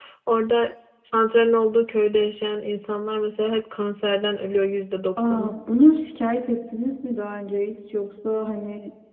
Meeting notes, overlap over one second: none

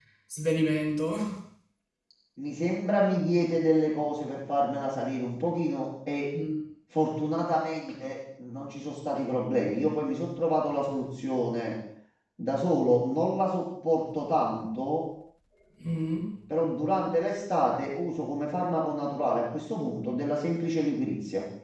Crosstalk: none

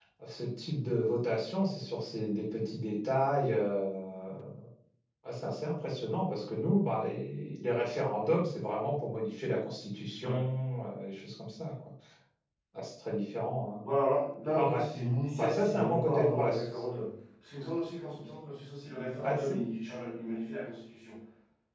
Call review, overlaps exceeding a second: present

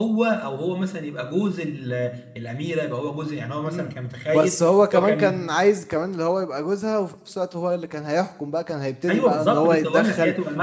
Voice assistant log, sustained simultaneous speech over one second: present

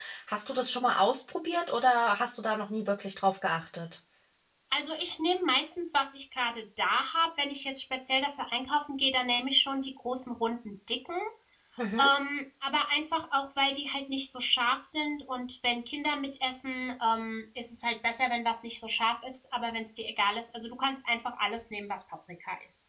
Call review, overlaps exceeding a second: none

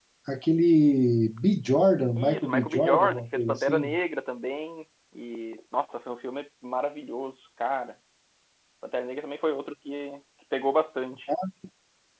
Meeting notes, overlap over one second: present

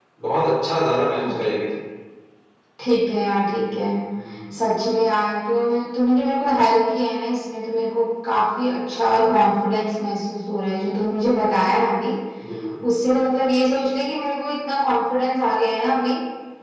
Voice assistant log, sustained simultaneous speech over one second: none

